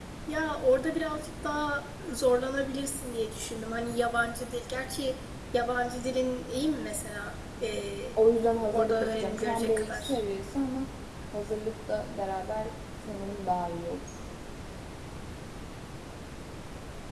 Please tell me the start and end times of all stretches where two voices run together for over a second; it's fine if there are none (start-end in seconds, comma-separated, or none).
8.7-10.2